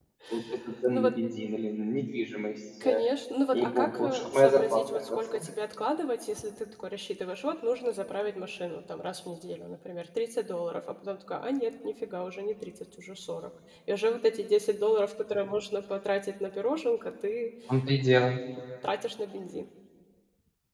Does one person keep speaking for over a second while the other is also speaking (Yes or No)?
Yes